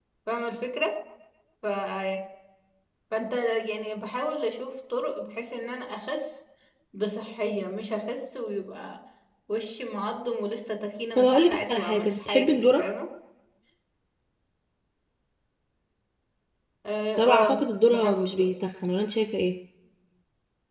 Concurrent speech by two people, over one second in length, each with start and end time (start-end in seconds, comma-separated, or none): 11.2-12.8, 17.2-18.5